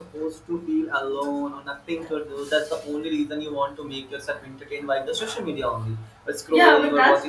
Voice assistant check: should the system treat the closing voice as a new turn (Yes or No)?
Yes